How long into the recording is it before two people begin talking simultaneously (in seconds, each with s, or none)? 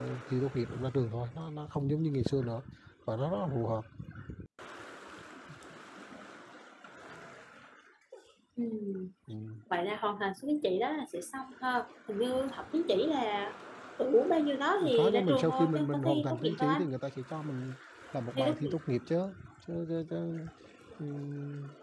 14.9 s